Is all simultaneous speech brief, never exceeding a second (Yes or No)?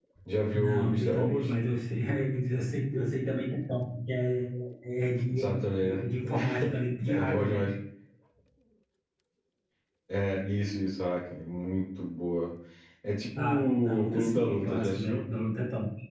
No